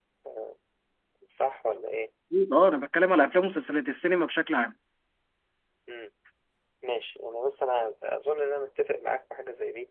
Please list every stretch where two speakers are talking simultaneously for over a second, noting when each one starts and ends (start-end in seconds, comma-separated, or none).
none